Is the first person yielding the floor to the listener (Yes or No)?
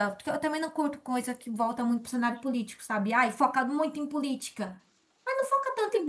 No